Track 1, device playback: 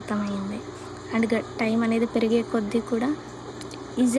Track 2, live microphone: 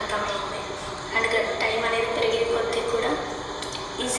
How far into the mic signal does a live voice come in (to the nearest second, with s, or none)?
none